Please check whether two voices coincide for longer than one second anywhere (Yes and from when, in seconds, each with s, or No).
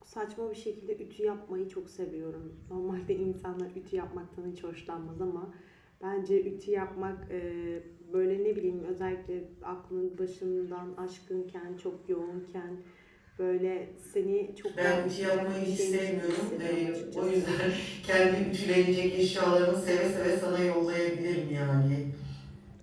Yes, from 14.7 s